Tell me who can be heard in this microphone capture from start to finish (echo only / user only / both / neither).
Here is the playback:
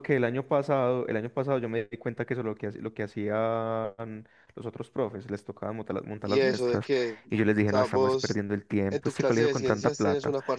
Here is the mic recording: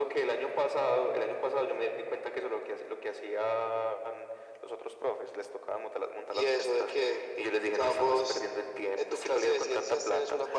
echo only